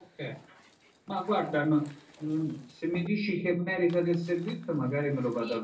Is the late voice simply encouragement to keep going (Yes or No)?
No